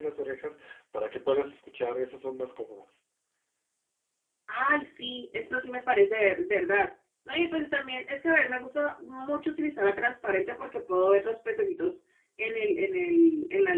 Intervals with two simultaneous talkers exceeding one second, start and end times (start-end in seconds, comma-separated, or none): none